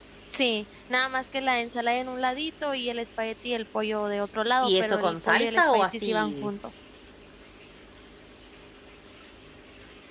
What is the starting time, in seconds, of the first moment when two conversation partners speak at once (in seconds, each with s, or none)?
4.6 s